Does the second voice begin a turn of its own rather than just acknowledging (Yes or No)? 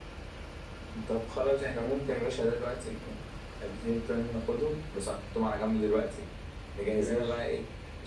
No